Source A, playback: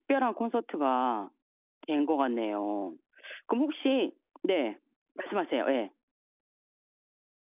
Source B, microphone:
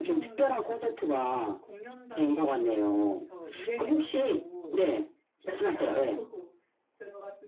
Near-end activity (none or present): present